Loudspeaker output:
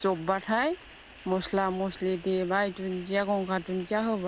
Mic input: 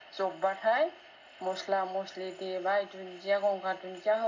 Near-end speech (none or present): none